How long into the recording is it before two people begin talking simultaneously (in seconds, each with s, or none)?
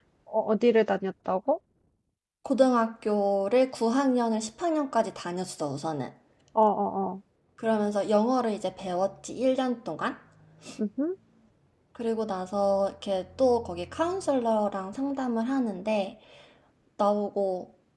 none